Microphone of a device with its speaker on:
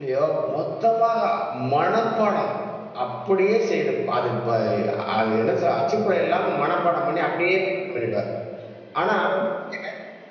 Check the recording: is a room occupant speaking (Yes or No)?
Yes